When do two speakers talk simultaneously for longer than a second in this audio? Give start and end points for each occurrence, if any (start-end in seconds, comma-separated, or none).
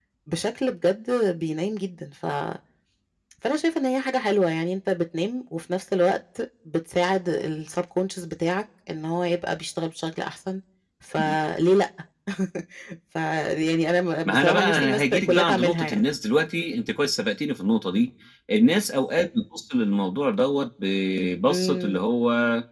14.2-16.0